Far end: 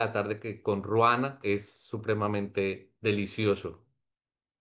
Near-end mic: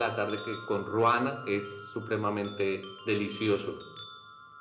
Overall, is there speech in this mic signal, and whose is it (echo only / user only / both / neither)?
echo only